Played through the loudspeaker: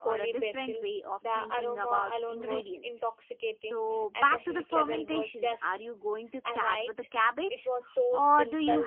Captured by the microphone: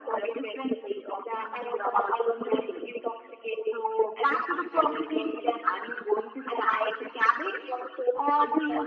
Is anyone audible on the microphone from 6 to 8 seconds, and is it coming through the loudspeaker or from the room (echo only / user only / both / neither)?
echo only